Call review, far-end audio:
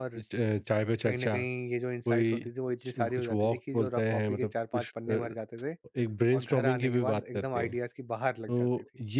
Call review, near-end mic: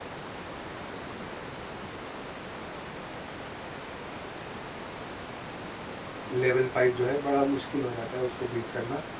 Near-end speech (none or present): present